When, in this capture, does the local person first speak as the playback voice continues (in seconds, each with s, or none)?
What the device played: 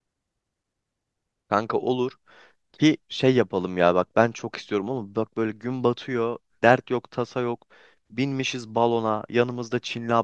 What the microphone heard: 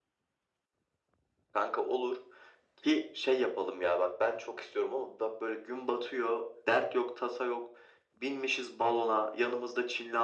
none